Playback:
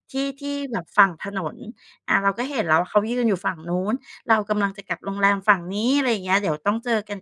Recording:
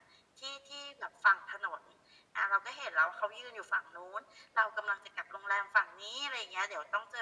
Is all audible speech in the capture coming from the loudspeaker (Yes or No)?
Yes